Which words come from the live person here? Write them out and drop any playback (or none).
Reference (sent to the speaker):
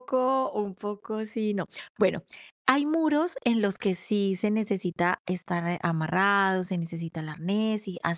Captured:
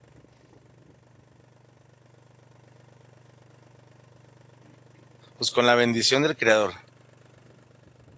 pues, con la bendición del creador?